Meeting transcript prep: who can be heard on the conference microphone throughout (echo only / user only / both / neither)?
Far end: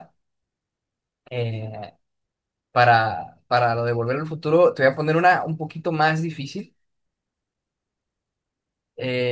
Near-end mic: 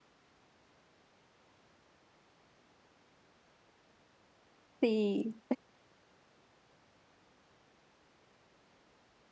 user only